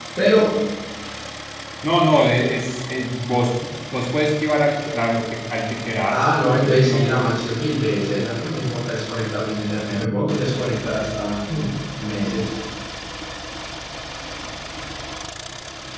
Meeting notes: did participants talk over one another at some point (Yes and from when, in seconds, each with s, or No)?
Yes, from 6.1 s